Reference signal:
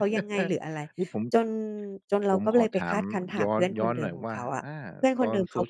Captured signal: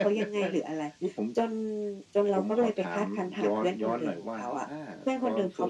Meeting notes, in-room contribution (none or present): none